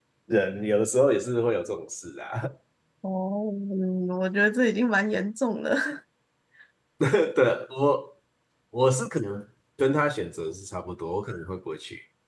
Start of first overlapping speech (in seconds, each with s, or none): none